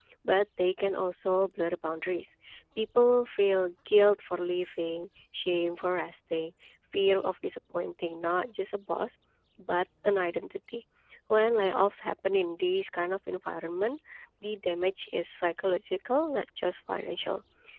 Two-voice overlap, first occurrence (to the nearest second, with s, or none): none